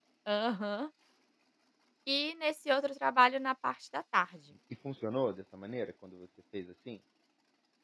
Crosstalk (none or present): none